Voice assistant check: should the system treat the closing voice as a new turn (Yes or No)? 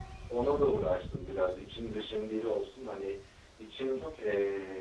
No